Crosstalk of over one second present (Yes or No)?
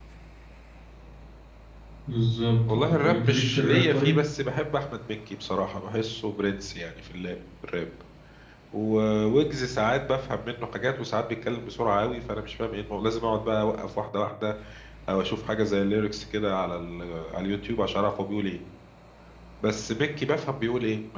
Yes